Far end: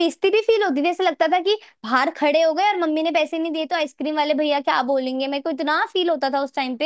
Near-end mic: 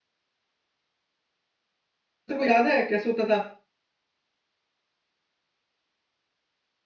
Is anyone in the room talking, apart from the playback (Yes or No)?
Yes